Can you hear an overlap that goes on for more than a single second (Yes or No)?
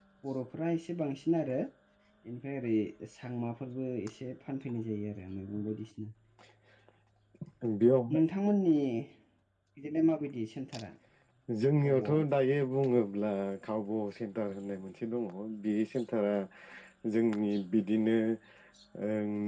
No